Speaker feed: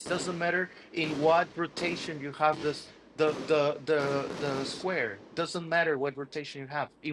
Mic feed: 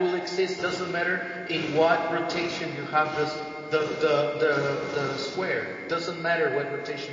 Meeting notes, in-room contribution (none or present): none